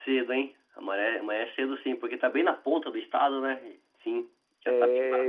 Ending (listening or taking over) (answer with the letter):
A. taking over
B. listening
A